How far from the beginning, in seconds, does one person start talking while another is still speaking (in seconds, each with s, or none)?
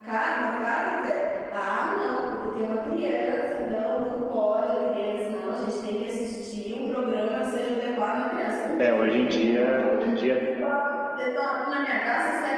8.8 s